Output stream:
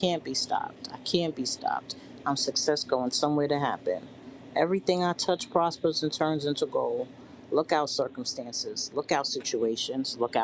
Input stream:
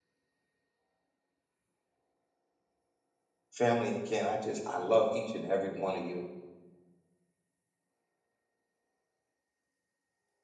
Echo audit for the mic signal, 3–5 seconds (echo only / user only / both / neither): user only